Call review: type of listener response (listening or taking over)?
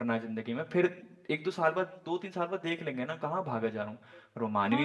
taking over